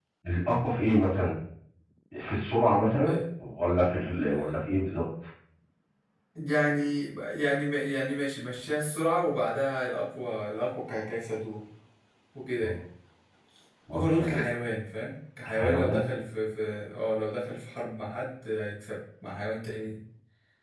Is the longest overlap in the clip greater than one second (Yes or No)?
No